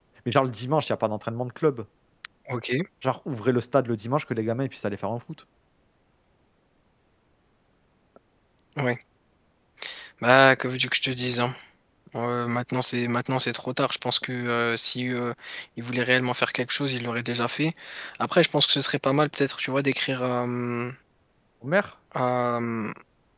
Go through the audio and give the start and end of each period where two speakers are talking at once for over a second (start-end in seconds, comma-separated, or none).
none